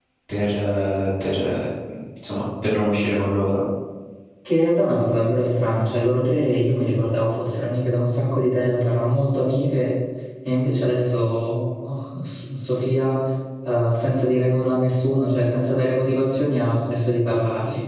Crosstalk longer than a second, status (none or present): none